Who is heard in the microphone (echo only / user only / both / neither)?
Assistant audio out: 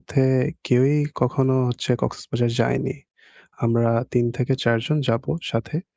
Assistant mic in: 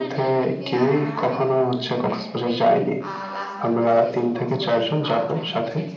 both